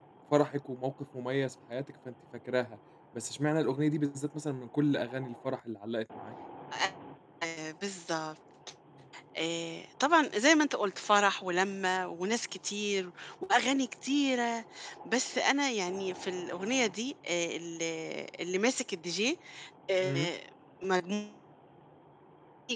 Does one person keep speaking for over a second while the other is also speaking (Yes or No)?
No